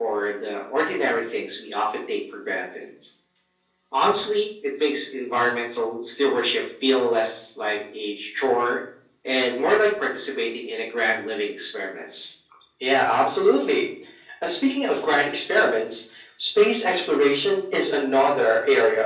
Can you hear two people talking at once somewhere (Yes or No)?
No